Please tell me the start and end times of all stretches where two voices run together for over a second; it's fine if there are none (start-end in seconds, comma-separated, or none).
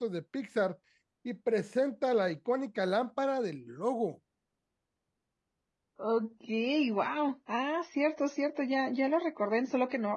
none